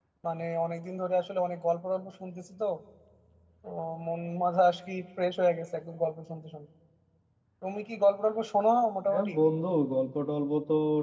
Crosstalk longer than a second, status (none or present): none